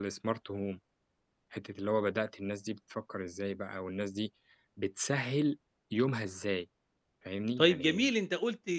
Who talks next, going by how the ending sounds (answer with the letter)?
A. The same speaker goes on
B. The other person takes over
B